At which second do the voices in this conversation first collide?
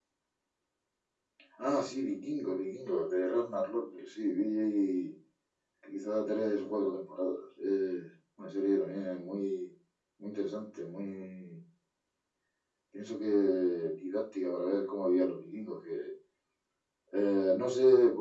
none

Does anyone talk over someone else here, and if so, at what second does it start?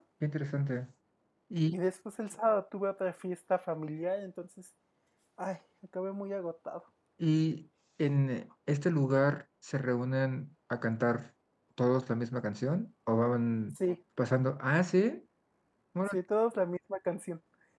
none

